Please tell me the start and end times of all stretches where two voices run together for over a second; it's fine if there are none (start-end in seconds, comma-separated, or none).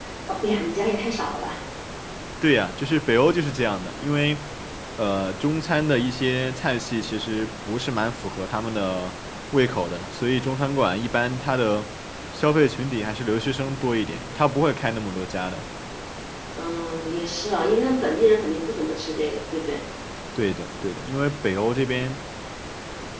none